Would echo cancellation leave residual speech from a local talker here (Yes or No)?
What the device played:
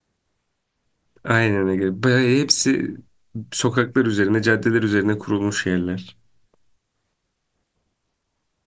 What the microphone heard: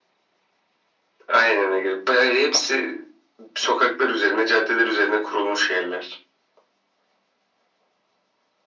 No